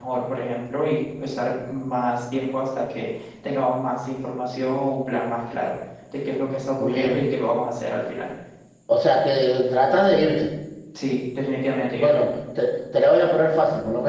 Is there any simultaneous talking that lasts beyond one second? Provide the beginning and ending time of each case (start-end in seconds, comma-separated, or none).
none